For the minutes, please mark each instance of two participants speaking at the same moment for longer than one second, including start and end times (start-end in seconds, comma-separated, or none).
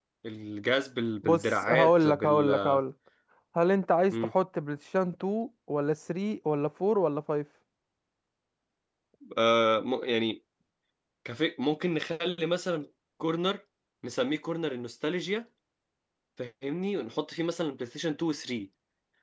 1.2-2.8